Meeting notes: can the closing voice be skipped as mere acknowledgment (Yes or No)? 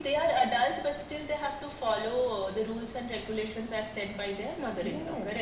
No